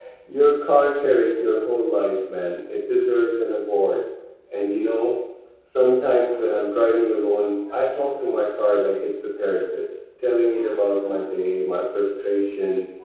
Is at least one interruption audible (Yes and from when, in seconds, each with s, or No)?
No